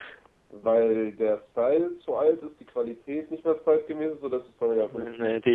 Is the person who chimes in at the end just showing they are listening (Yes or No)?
No